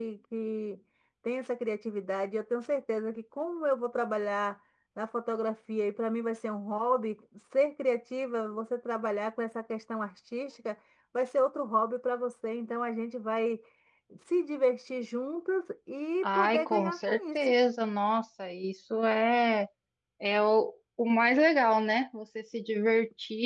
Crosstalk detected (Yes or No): Yes